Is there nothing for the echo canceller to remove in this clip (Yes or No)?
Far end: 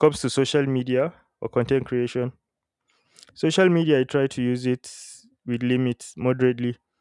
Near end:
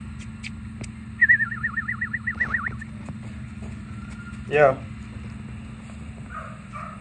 Yes